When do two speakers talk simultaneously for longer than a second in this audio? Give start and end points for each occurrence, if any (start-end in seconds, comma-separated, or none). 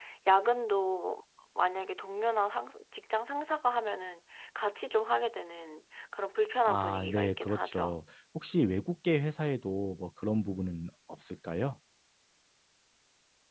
6.7-7.9